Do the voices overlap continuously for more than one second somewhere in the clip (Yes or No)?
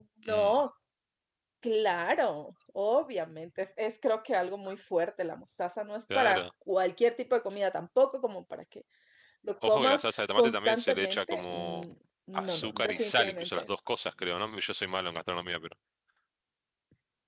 Yes